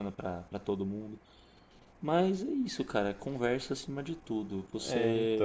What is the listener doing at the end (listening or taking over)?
taking over